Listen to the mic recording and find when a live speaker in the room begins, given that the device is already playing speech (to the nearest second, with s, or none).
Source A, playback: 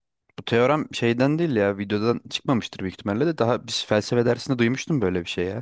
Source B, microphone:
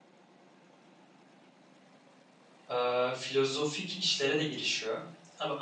3 s